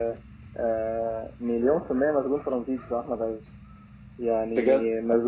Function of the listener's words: listening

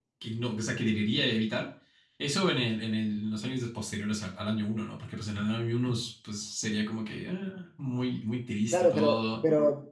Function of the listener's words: taking over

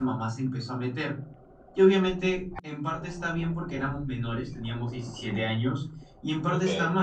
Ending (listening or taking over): listening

